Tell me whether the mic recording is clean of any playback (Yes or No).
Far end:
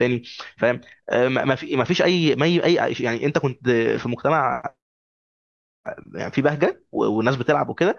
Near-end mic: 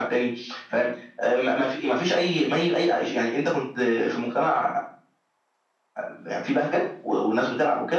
No